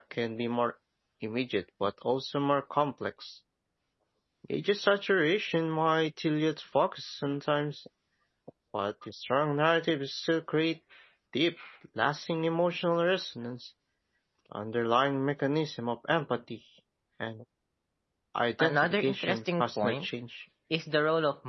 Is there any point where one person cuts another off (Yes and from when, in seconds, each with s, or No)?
Yes, from 18.6 s